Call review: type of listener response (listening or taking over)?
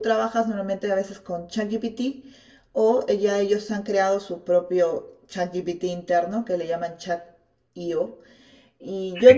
listening